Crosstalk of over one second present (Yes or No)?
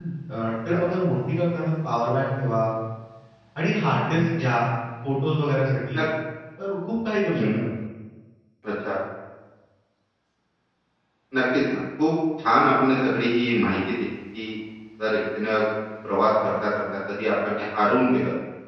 No